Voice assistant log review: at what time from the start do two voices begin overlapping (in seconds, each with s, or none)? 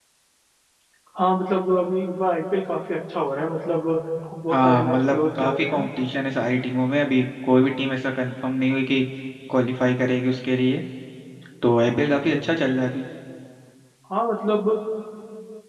4.5 s